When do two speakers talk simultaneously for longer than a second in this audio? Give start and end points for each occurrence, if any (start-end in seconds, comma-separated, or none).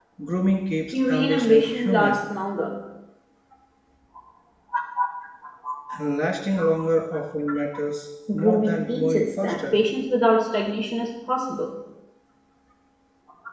0.9-2.2, 8.3-9.8